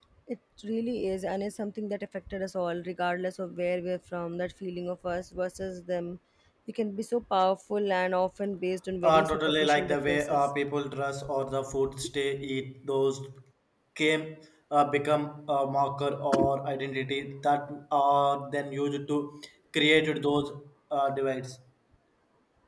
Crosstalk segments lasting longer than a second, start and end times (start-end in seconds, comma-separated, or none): 9.0-10.5